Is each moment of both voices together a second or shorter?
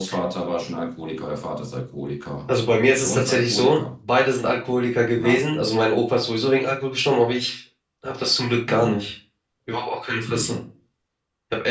No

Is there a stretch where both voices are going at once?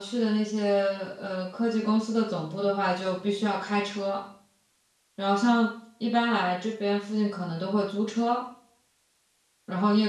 No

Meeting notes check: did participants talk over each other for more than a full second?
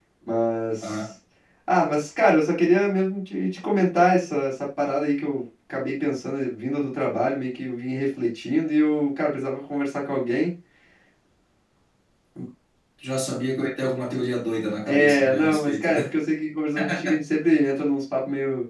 Yes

